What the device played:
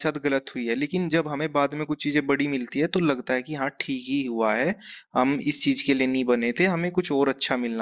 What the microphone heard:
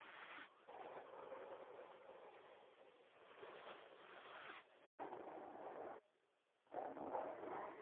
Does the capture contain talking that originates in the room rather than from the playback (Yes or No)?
No